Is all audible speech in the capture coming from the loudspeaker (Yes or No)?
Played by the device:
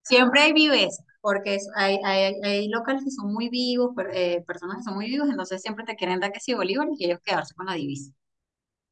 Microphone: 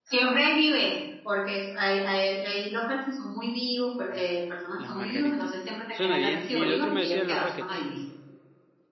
No